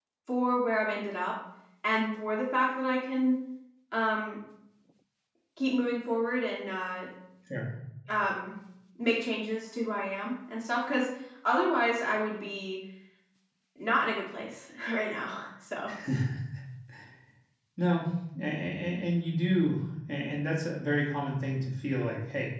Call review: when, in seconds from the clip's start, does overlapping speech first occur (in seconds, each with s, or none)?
none